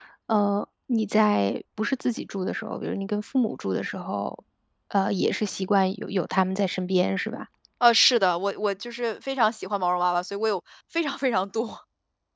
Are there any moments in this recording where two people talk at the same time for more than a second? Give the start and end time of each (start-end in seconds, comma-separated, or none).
none